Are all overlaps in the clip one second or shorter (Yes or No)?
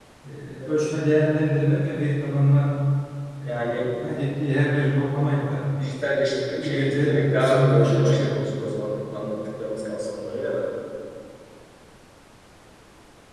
No